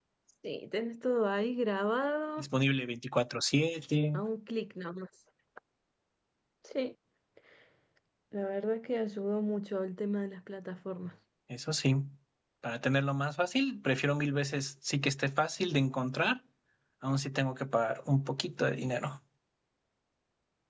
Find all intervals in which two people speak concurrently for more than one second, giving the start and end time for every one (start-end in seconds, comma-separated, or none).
none